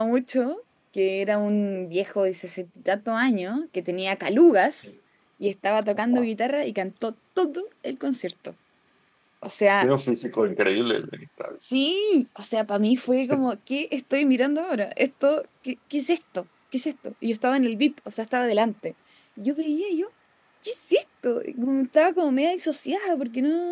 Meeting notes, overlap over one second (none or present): none